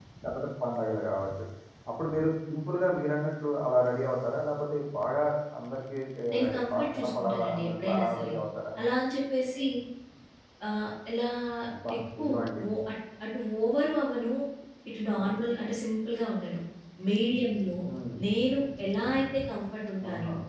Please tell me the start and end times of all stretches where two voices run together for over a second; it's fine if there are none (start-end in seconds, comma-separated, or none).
6.3-8.3